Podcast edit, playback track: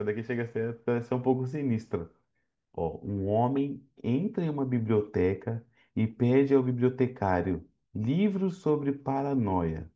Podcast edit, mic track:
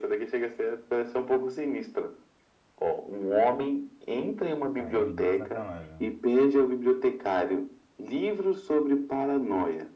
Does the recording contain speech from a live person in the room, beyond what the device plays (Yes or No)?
Yes